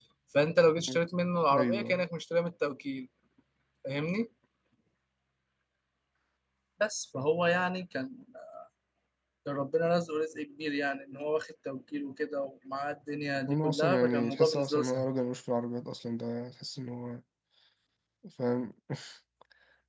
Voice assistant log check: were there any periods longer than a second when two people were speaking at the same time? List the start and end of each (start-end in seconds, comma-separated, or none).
13.5-15.1